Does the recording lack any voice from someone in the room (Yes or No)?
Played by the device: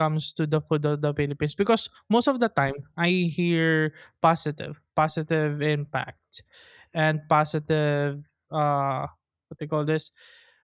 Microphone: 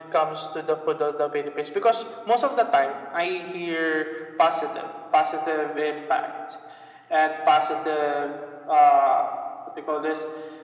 Yes